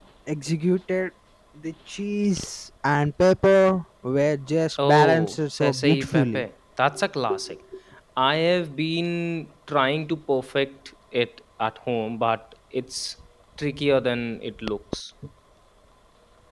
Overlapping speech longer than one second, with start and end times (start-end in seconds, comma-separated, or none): 4.8-6.4